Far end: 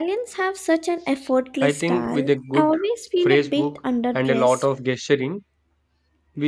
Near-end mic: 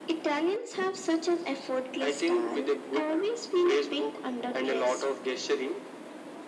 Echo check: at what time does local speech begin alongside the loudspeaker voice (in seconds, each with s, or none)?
none